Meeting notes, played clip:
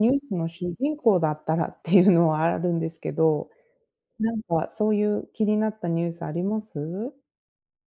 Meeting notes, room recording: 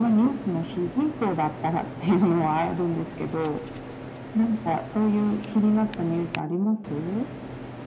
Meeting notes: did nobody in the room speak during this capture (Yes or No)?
Yes